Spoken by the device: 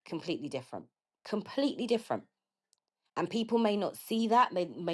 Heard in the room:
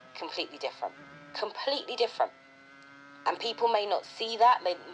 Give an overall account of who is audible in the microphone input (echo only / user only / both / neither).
echo only